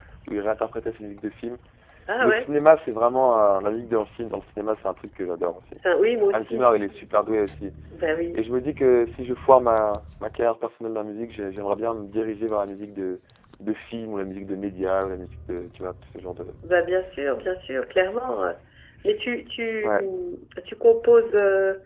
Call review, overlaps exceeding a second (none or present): none